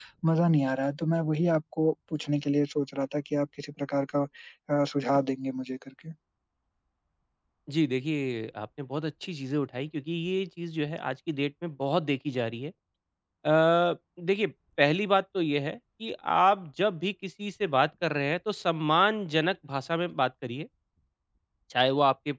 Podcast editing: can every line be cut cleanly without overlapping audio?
Yes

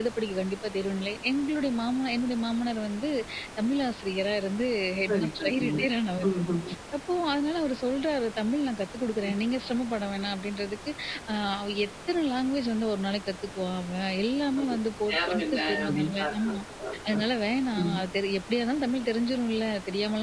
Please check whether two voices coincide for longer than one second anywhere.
Yes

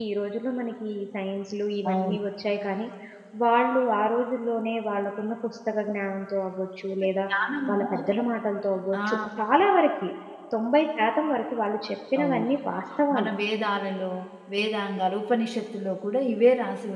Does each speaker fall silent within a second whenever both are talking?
Yes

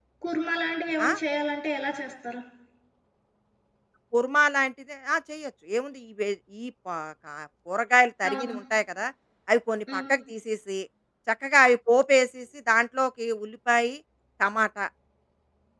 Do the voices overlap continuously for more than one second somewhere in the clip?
No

